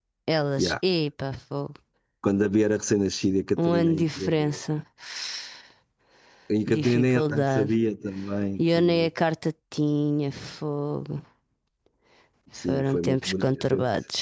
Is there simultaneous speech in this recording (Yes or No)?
Yes